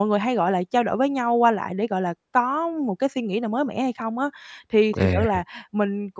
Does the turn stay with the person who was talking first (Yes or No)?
Yes